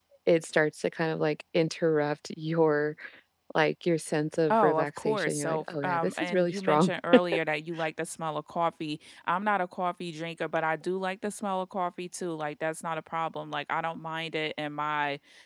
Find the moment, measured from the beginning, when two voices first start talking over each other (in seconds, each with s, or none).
4.5 s